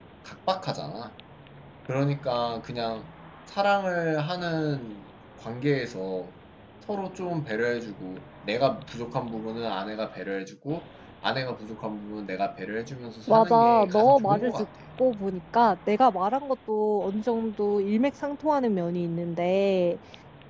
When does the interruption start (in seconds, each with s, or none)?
13.3 s